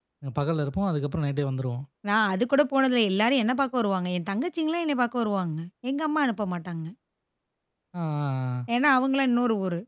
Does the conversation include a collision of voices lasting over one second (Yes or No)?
No